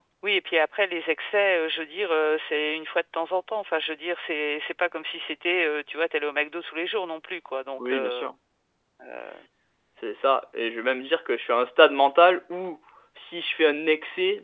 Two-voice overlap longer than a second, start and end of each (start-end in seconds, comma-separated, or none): none